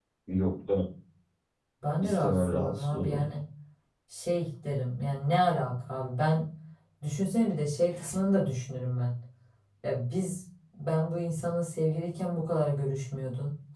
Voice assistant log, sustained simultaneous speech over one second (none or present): present